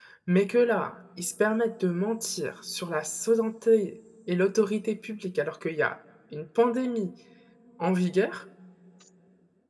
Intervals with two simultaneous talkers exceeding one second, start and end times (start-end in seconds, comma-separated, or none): none